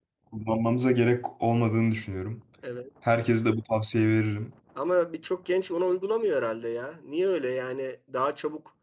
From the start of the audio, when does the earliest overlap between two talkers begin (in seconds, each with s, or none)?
none